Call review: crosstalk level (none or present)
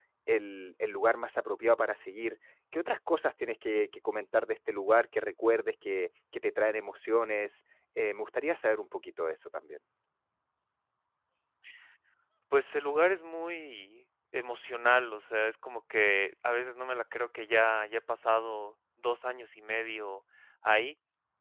none